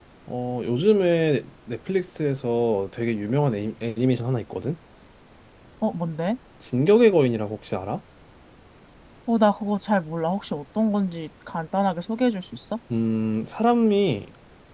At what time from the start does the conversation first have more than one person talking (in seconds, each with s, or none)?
none